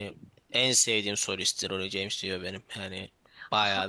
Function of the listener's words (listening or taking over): taking over